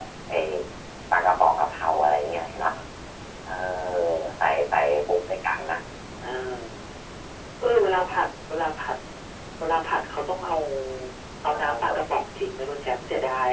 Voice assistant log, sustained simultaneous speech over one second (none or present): none